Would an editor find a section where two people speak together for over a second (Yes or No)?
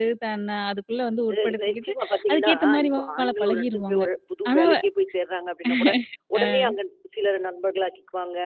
Yes